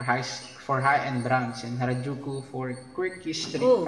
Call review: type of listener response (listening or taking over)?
taking over